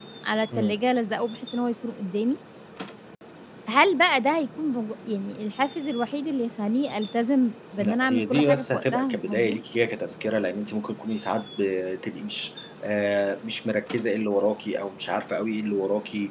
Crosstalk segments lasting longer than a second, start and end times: 7.8-9.6

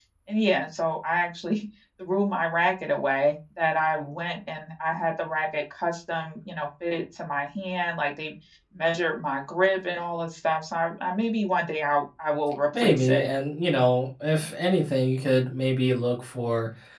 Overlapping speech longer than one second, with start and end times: none

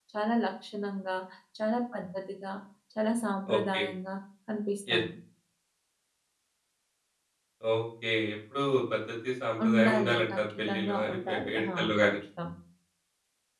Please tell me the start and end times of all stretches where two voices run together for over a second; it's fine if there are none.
9.6-12.2

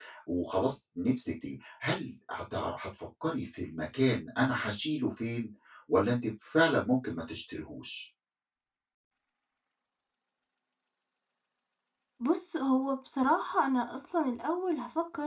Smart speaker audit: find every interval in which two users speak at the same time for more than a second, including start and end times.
none

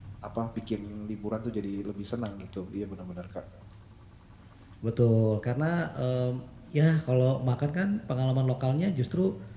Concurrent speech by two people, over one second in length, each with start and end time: none

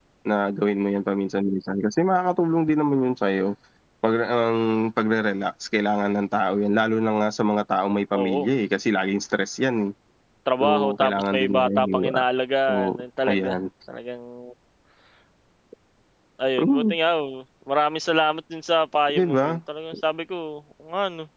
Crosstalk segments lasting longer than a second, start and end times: 10.6-12.2

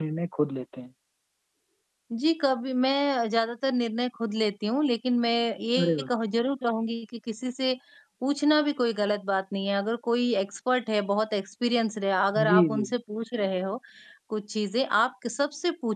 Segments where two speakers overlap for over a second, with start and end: none

